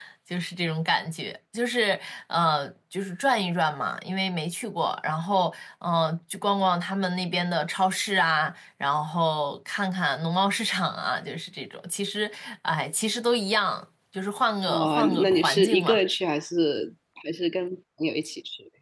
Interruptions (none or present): present